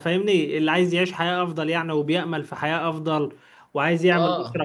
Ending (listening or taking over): listening